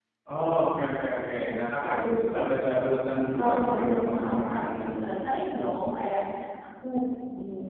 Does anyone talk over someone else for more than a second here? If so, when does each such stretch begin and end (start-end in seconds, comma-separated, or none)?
3.3-5.1